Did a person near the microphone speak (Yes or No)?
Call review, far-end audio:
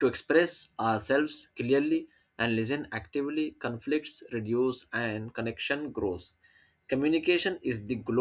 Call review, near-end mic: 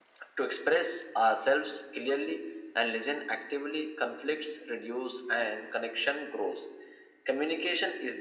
No